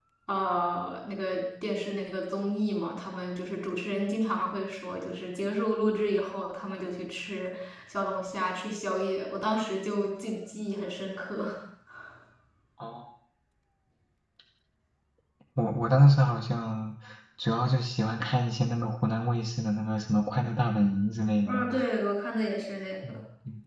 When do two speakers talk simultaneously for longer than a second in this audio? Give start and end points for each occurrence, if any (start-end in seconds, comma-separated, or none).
none